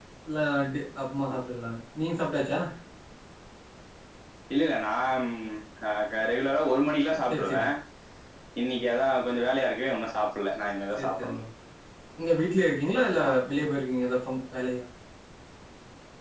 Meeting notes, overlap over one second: none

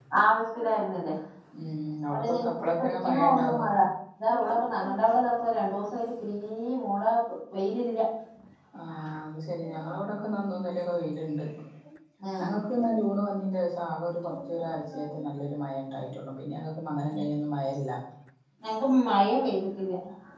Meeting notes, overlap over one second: present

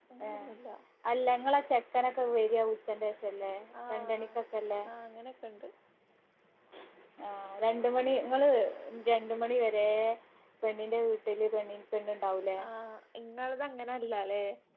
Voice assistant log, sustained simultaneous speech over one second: none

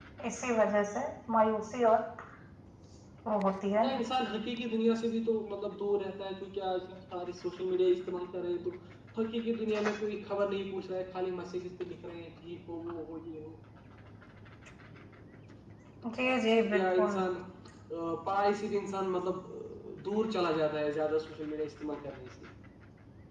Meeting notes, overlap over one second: none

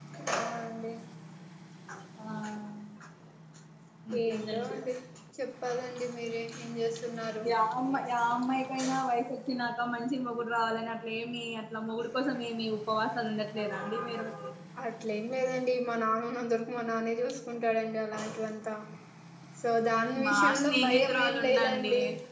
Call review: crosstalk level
present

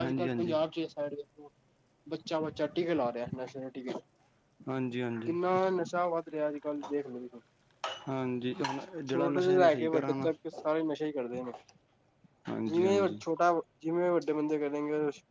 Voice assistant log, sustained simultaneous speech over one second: present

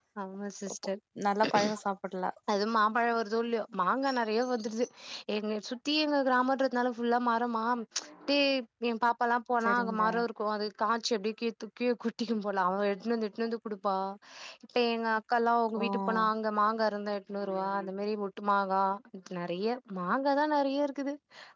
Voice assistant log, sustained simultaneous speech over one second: none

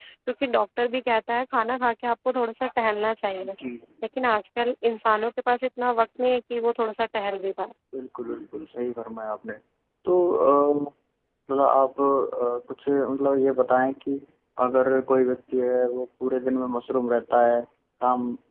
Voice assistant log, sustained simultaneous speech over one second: none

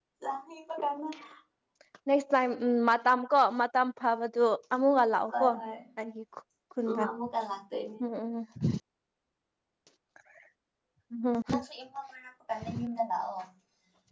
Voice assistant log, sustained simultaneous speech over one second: none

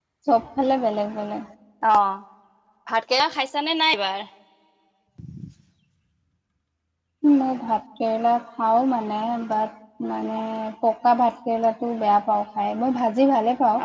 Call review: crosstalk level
none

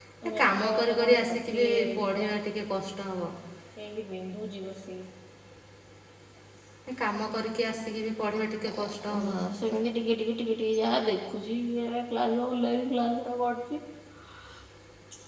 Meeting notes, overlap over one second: present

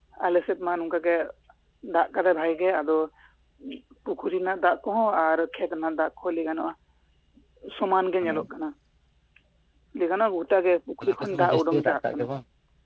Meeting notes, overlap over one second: present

